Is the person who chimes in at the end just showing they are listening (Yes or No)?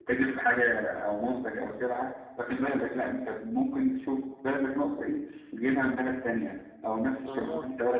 Yes